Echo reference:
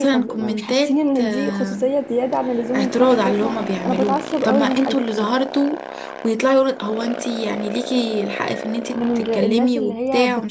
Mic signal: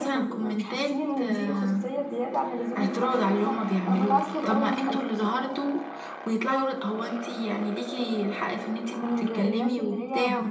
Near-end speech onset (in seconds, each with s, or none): none